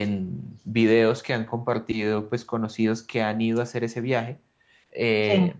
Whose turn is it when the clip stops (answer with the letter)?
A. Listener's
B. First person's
B